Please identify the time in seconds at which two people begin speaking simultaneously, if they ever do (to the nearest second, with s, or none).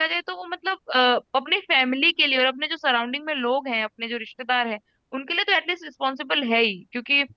none